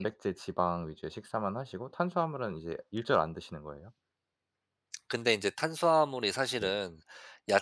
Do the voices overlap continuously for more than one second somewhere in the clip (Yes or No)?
No